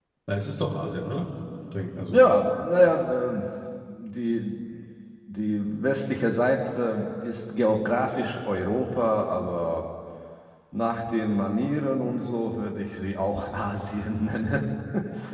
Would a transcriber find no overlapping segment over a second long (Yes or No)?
Yes